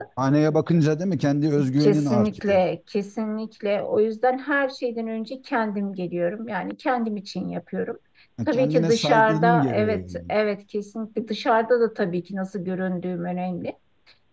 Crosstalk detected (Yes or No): Yes